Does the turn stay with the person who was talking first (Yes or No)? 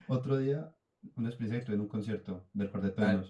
No